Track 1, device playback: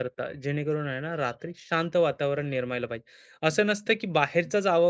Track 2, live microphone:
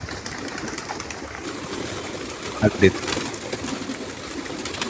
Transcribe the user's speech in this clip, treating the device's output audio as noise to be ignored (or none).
अगदीच,